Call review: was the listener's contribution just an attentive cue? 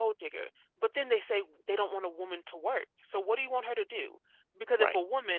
Yes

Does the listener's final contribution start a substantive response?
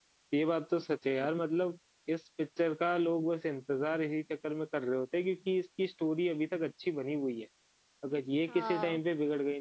No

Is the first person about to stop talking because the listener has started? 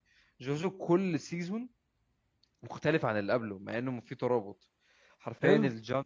No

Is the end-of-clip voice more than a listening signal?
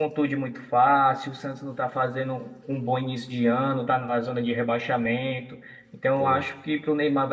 No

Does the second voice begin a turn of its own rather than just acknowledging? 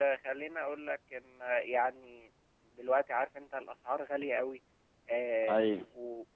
No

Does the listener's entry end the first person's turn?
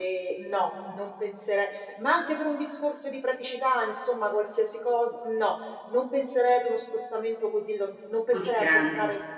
No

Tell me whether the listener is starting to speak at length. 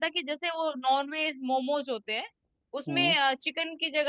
No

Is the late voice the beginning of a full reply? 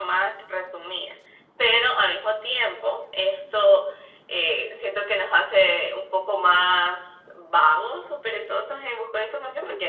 No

